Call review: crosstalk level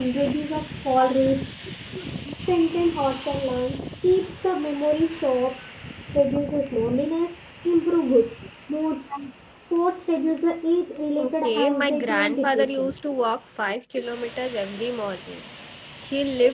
present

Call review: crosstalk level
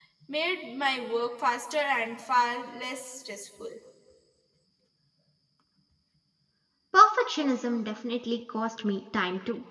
none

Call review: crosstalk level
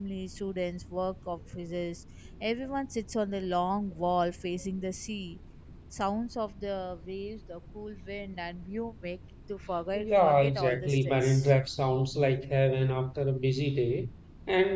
present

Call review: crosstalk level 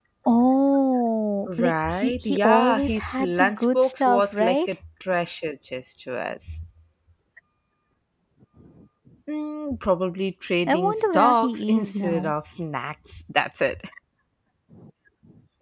present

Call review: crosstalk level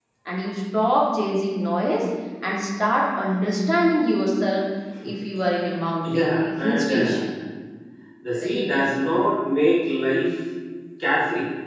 present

